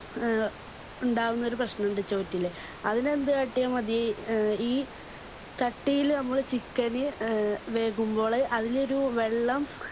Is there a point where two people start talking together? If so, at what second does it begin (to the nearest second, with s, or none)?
none